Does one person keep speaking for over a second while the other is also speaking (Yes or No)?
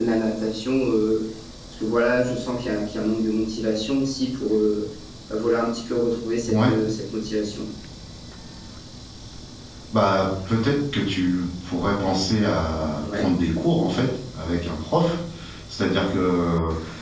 No